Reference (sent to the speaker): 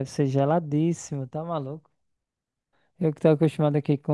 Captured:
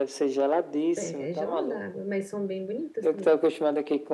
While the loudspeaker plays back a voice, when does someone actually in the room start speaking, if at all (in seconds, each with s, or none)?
1.0 s